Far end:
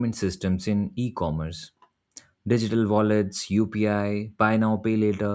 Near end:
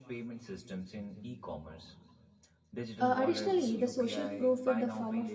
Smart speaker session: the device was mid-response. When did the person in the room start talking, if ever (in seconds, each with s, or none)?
3.0 s